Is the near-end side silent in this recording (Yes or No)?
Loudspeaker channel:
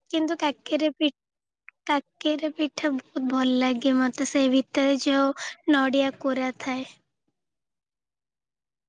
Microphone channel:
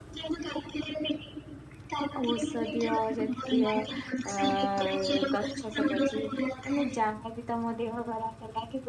No